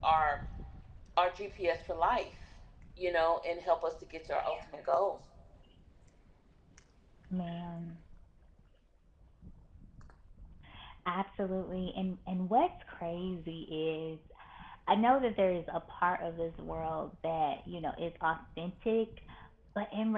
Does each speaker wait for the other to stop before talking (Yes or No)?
Yes